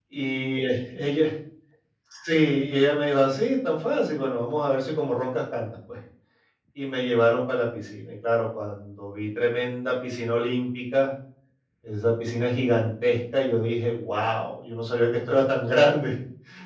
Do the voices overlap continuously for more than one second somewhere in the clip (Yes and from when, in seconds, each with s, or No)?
No